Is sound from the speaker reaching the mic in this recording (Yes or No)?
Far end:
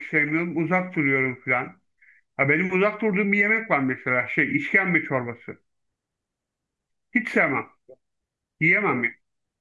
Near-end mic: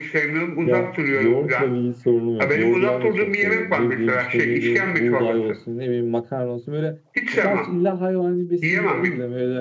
Yes